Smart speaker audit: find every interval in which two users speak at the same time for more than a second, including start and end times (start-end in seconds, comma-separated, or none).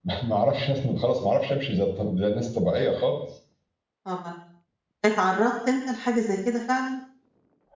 none